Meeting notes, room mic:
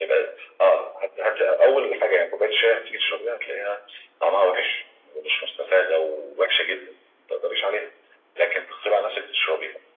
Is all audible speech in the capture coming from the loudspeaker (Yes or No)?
Yes